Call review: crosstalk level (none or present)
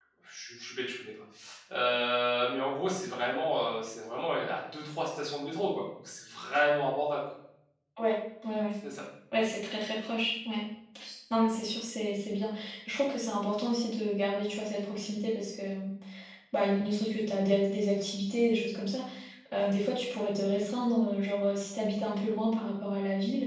none